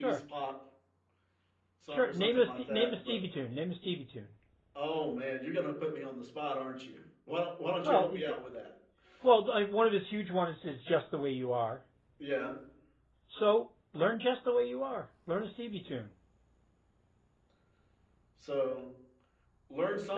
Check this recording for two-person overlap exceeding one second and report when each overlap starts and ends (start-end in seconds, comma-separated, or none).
1.9-3.2